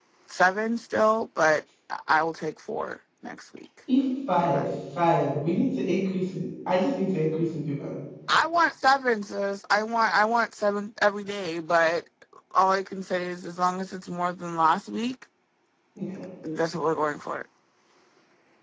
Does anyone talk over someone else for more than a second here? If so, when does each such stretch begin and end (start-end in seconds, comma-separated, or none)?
none